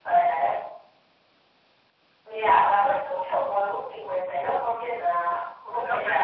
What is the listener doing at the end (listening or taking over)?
taking over